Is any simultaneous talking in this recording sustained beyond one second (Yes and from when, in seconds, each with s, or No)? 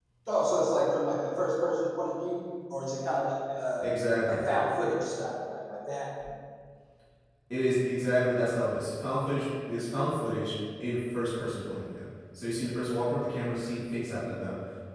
No